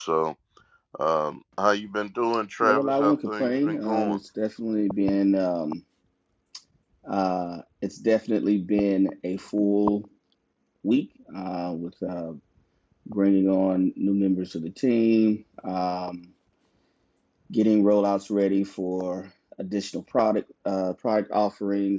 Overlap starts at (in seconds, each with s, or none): 2.6 s